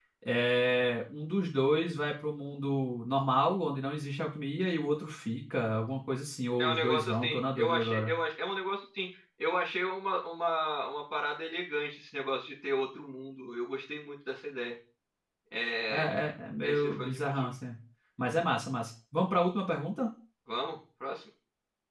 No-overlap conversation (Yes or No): No